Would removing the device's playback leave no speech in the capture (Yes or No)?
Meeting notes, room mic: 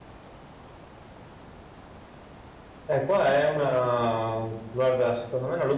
No